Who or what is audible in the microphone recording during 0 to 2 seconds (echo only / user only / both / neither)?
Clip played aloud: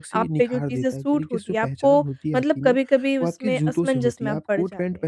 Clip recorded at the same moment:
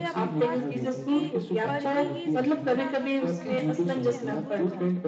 both